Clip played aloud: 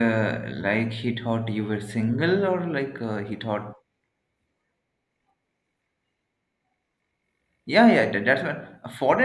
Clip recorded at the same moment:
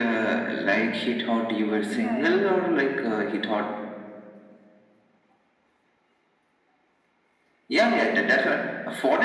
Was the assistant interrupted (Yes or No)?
Yes